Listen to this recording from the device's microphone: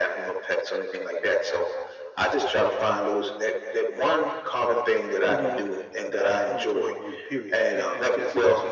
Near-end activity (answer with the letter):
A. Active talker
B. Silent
A